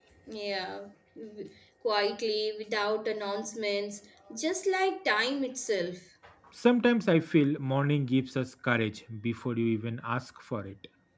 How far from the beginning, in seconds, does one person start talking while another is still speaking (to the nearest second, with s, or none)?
none